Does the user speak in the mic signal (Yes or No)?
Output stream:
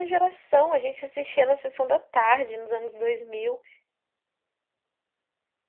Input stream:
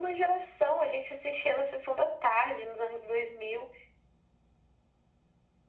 No